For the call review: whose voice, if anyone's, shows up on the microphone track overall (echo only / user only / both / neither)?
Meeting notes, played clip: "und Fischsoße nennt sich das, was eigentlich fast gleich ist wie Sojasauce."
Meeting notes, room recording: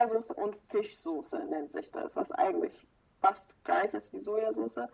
echo only